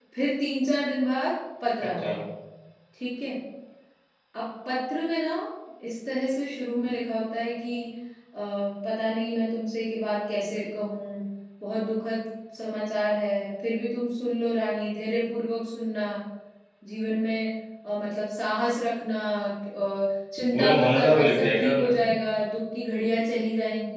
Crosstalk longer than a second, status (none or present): present